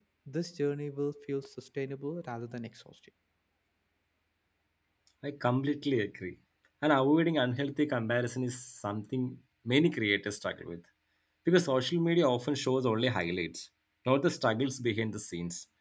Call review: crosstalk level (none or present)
none